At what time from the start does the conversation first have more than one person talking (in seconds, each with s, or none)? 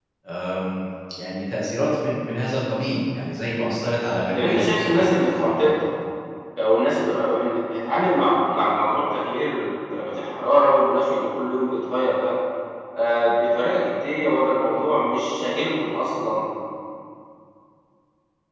4.3 s